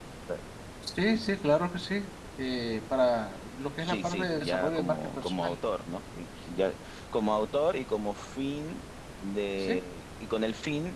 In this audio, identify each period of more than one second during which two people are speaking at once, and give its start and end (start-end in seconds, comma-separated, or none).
3.9-5.6